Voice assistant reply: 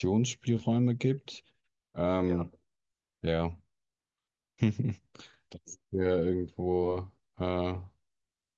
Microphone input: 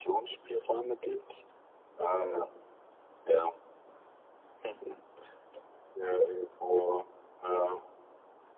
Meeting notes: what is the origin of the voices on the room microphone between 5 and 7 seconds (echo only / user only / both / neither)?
echo only